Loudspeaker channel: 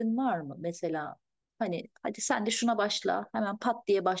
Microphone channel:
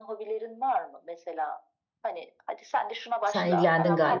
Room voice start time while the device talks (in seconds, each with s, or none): 3.2 s